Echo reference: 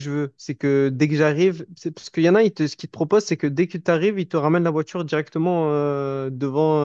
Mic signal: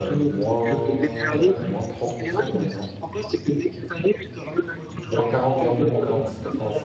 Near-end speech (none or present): present